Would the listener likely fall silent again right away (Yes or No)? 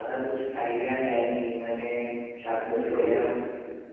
Yes